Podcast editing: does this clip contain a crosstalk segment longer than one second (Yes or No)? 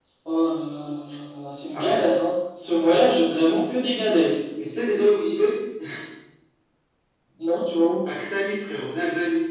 No